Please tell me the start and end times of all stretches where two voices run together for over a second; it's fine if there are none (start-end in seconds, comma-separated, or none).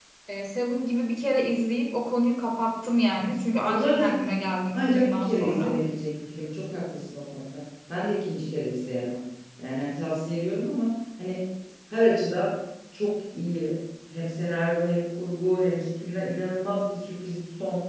3.7-5.8